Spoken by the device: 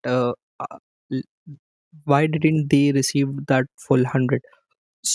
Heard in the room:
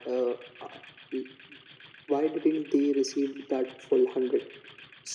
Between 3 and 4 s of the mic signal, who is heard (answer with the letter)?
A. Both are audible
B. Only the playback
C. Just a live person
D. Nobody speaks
B